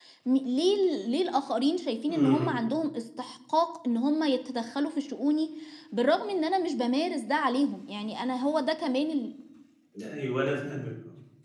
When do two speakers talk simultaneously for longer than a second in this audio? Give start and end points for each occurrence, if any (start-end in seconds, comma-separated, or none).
none